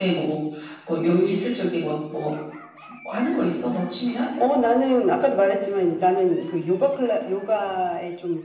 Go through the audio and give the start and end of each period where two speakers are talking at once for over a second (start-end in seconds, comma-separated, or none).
none